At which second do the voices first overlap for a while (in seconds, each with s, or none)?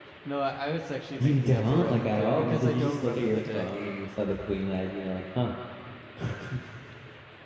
1.2 s